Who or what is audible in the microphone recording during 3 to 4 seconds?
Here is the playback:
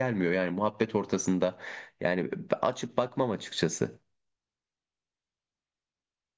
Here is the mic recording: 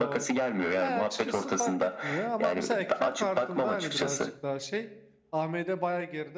both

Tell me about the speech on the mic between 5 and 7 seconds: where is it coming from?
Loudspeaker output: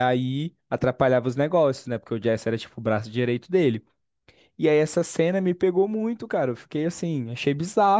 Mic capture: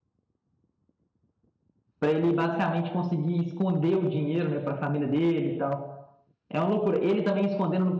user only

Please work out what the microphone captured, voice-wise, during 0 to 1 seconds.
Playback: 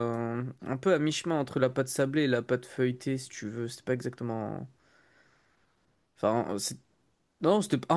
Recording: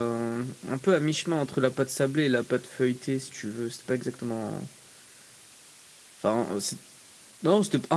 echo only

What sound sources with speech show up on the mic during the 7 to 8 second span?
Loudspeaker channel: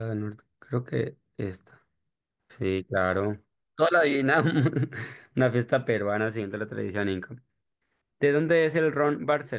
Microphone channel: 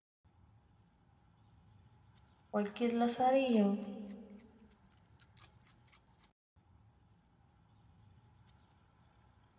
neither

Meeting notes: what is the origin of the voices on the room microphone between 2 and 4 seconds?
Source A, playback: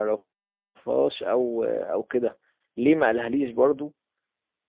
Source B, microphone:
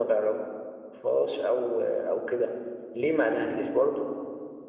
echo only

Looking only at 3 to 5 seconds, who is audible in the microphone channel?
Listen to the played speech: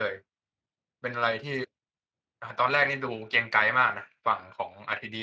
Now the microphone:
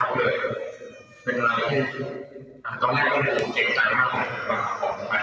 both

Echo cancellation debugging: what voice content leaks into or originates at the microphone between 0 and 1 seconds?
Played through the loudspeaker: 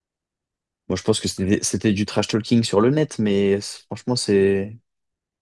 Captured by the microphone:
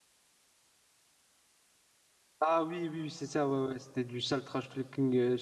neither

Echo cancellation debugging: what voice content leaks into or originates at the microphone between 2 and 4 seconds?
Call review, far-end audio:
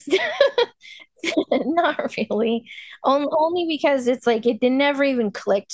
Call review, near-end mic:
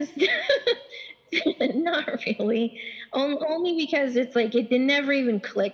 echo only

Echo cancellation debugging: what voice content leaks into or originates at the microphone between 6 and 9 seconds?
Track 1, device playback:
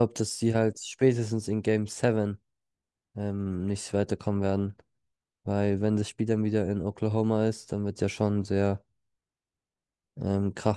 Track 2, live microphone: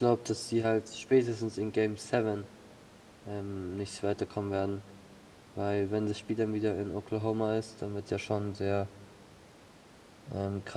echo only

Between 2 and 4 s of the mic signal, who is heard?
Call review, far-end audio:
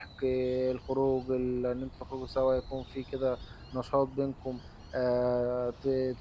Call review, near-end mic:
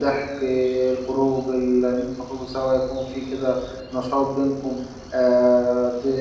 echo only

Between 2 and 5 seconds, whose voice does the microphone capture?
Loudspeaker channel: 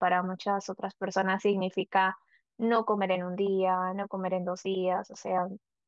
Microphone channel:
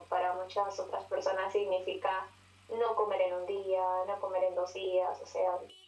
echo only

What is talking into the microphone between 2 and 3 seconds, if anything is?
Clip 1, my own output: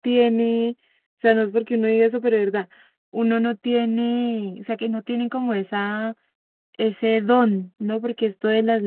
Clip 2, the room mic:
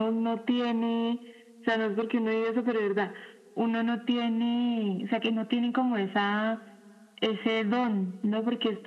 echo only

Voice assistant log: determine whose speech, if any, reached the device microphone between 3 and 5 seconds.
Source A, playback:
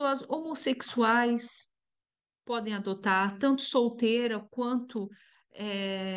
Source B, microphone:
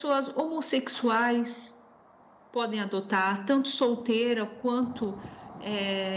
echo only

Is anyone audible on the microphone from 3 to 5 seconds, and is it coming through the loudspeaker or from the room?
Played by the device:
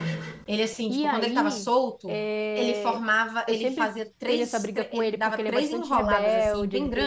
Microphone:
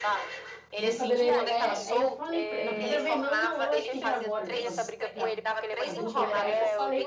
both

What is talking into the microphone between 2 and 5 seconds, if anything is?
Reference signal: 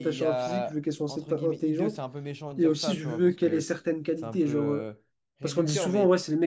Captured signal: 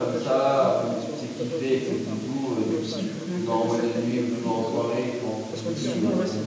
both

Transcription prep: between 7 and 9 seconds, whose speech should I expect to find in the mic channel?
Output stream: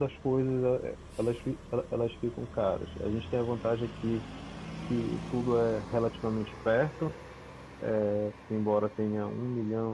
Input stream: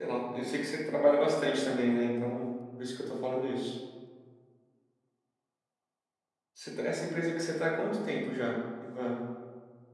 user only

